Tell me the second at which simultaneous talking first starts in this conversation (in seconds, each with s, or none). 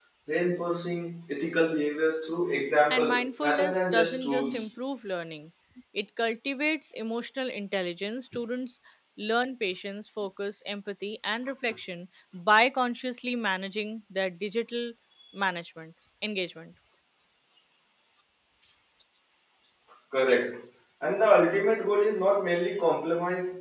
2.9 s